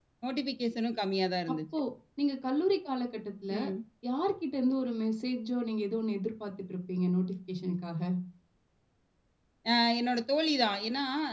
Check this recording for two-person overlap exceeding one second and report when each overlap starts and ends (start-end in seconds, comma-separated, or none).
none